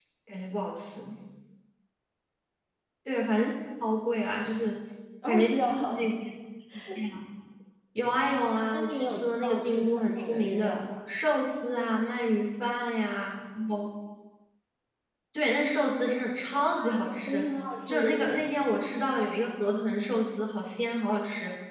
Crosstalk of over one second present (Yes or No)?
Yes